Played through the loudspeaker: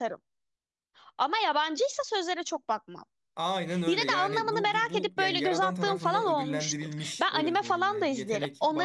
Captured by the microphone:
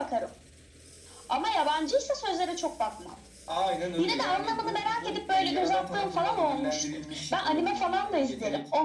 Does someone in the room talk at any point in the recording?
No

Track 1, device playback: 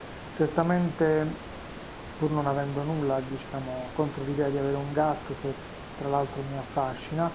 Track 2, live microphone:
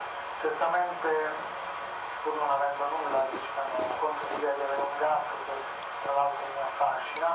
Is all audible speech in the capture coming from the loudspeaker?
Yes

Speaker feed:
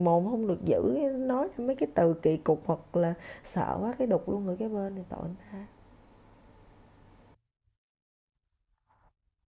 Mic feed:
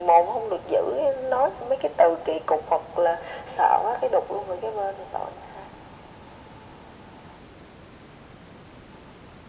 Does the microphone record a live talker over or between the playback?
No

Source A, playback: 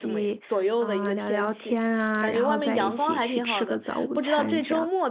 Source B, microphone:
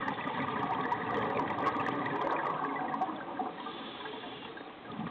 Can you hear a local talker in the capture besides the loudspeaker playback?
No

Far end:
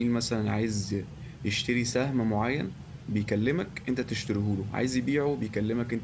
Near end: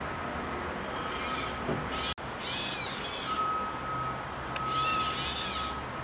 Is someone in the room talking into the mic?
No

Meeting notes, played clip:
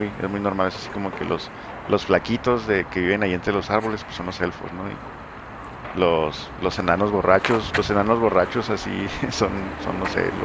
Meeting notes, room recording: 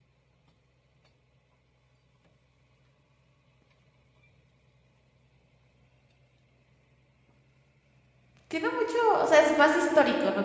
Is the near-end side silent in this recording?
No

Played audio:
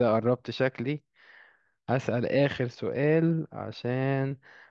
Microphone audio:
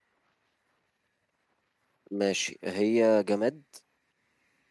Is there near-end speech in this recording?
Yes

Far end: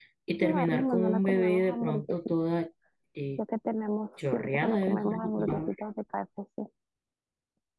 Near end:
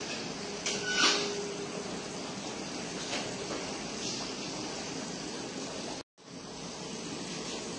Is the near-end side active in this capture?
No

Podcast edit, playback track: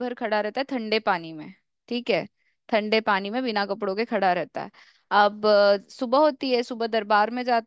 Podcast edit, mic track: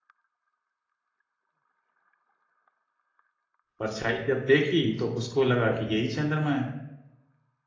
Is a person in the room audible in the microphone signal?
Yes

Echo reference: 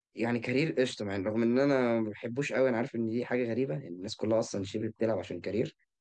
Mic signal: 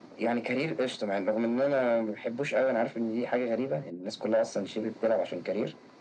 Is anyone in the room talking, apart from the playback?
No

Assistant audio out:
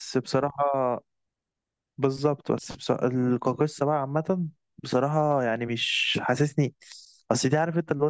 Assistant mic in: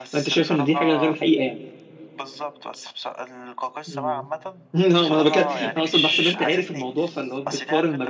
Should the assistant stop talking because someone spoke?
Yes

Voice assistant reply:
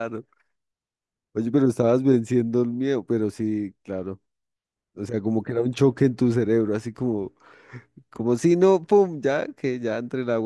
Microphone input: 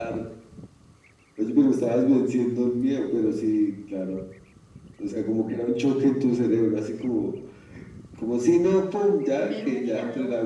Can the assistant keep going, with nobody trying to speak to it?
No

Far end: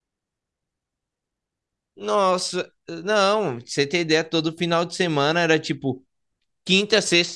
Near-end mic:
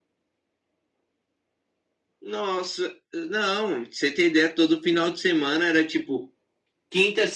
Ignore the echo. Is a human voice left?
No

